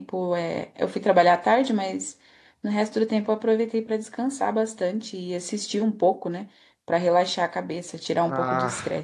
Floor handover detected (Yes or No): Yes